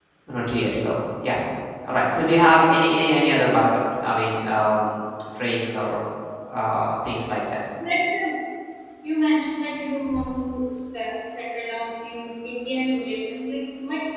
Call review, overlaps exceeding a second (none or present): none